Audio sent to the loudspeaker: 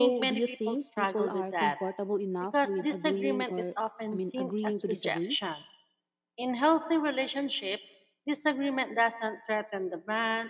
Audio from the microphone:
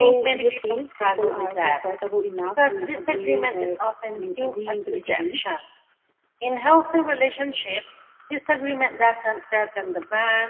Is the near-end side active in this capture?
No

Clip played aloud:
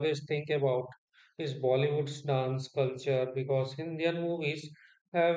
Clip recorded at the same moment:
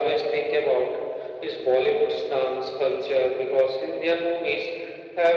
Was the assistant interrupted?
No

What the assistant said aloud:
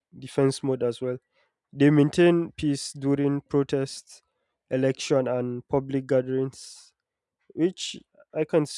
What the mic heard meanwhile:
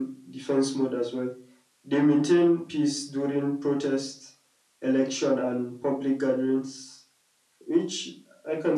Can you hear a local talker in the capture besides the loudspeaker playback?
No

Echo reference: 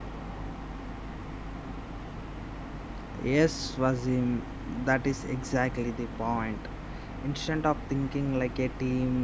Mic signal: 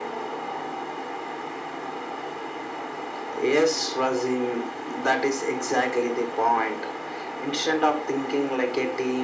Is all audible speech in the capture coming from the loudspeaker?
Yes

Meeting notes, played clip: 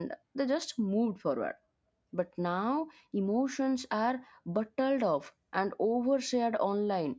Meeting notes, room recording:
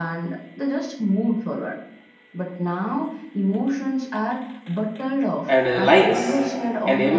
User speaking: Yes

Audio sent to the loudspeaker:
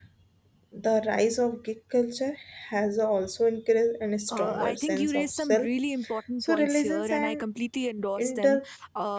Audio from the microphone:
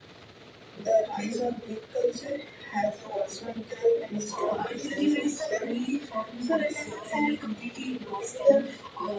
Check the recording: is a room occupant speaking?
No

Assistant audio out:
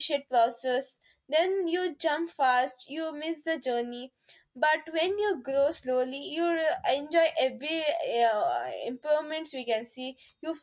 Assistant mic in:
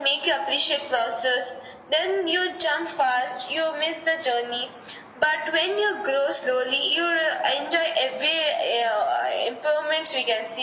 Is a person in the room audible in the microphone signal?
No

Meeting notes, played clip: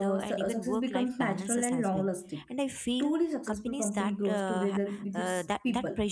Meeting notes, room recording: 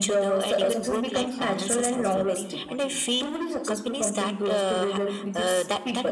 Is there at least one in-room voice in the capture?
Yes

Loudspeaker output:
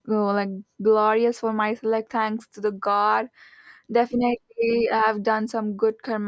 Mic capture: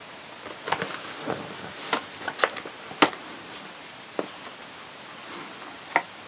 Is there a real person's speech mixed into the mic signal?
No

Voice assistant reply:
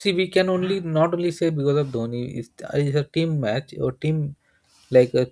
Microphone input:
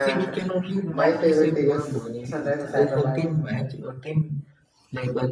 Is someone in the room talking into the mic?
Yes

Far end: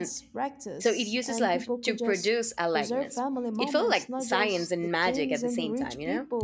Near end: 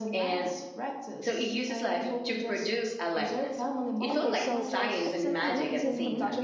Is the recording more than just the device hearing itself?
Yes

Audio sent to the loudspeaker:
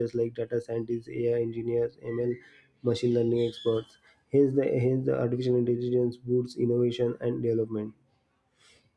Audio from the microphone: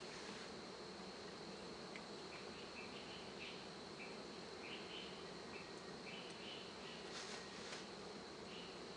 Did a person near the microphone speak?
No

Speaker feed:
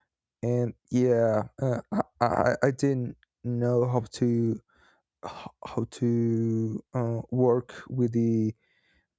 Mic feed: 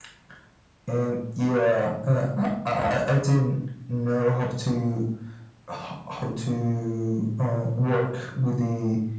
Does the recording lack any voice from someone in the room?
Yes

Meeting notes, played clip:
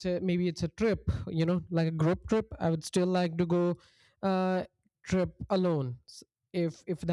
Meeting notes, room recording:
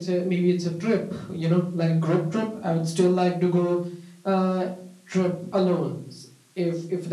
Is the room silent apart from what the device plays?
Yes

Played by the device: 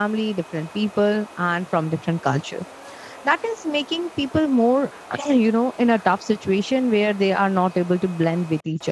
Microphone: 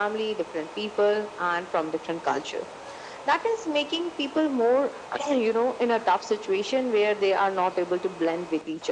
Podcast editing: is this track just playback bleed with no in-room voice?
Yes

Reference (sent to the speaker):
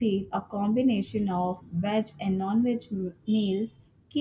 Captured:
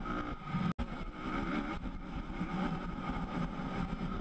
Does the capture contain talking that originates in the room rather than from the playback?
No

